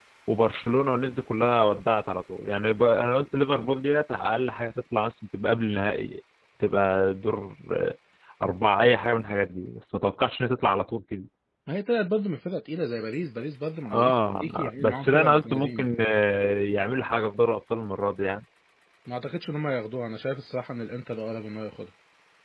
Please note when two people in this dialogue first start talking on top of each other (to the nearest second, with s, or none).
14 s